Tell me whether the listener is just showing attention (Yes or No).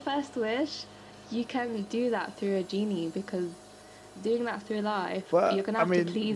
No